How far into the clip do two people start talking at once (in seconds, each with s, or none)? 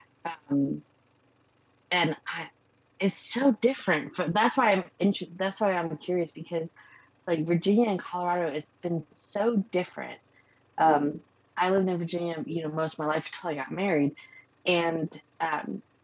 none